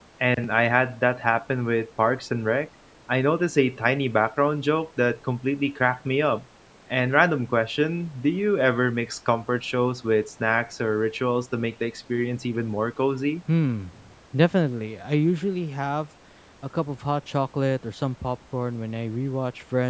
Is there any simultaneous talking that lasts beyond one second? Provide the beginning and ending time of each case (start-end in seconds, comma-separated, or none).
none